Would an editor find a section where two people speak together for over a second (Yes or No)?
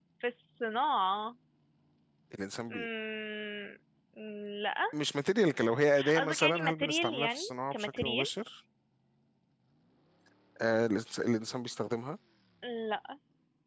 Yes